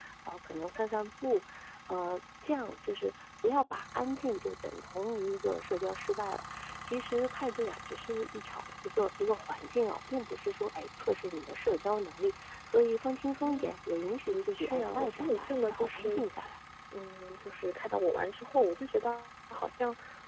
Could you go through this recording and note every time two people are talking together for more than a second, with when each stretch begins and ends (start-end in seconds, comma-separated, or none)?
14.3-16.2